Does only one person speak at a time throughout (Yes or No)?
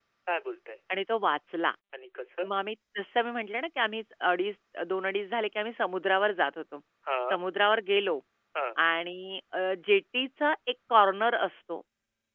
Yes